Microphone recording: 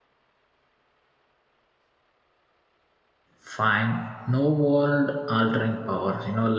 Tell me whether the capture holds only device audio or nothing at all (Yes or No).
No